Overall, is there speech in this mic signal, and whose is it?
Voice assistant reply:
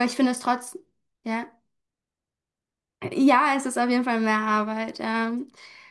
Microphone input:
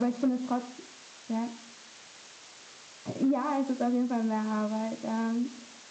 echo only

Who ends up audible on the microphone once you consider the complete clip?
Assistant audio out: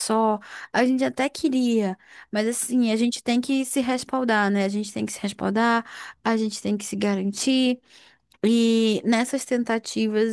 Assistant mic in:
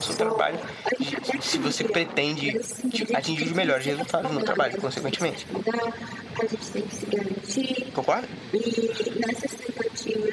both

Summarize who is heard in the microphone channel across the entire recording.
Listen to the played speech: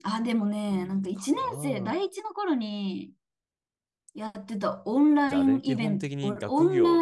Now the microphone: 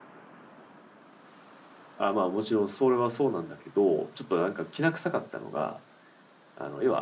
user only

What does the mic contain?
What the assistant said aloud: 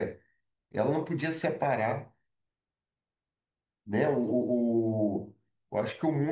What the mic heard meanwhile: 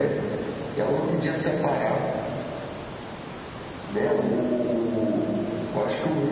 echo only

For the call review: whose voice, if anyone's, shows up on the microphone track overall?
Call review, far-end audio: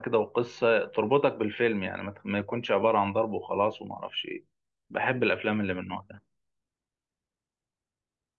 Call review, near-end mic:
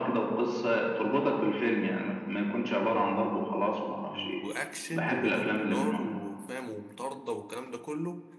both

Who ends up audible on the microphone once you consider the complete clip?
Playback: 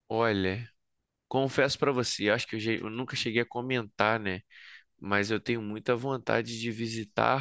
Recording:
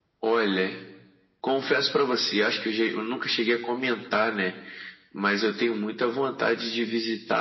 echo only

